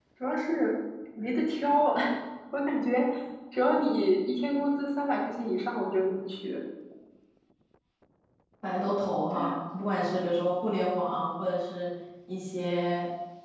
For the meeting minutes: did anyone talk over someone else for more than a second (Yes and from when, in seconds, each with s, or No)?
No